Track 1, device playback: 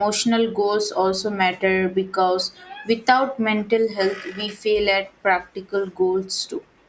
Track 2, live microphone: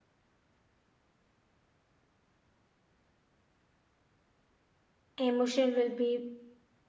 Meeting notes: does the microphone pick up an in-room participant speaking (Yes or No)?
Yes